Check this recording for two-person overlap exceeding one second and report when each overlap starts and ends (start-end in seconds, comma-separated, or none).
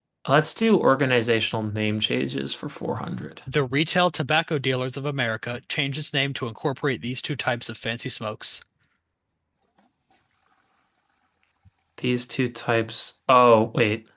none